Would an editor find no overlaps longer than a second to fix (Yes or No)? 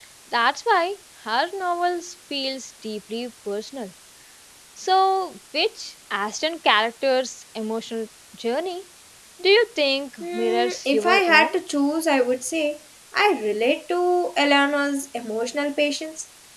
No